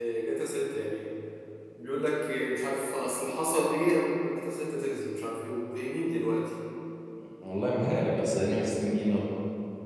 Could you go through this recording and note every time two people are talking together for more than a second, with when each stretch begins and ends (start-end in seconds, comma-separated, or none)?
none